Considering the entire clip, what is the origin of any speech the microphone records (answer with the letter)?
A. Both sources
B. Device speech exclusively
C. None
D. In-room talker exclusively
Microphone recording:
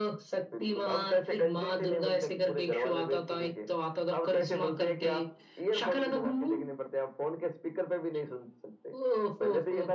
B